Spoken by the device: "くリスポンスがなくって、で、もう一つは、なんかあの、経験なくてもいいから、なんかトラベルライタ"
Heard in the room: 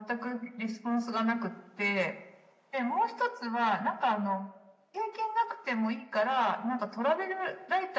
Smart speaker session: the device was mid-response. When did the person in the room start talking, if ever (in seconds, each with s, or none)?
none